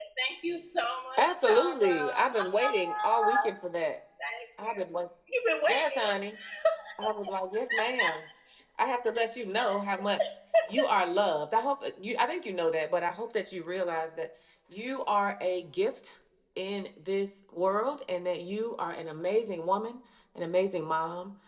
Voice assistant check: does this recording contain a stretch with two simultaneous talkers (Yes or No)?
Yes